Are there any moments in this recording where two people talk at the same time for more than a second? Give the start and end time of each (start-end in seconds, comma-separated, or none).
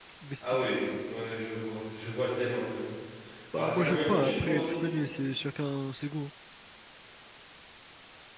3.5-4.8